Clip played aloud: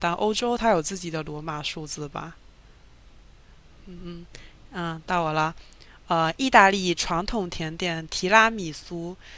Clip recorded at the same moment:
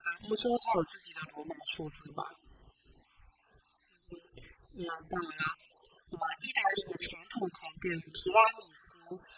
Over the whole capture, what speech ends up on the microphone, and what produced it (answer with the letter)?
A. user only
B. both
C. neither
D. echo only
D